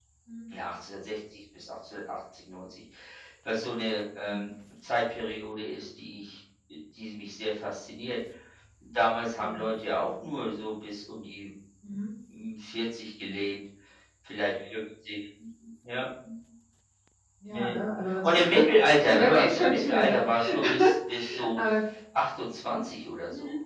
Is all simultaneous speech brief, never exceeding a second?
No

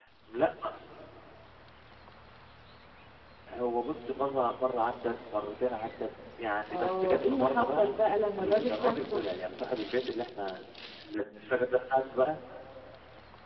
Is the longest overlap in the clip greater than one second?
Yes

